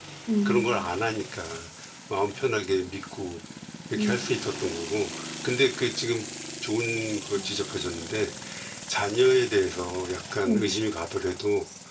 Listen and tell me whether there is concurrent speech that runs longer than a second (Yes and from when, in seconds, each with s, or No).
No